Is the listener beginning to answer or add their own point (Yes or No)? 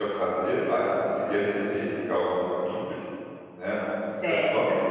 No